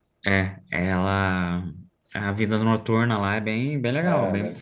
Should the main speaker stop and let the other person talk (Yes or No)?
Yes